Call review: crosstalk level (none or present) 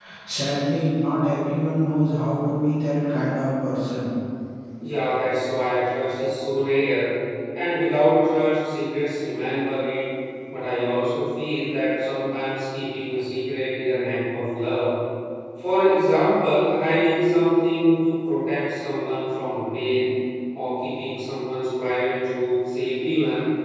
none